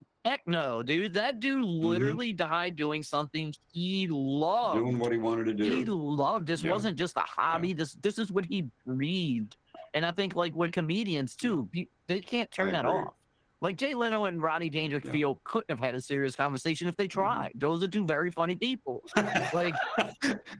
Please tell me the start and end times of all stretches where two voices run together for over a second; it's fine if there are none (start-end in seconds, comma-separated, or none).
none